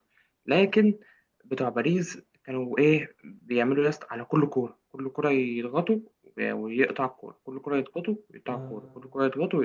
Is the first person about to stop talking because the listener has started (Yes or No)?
No